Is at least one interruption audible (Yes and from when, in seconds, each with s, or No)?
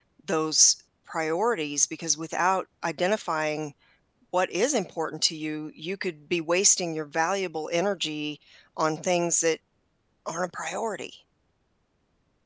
No